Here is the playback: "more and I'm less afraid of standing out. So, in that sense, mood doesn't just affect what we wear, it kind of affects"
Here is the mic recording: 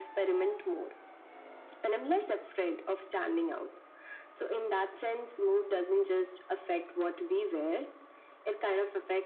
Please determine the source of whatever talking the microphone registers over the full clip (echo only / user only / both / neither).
echo only